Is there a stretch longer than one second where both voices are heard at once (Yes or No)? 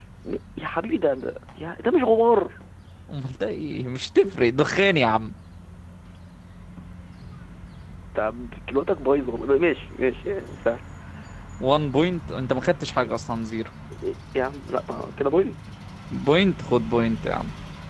No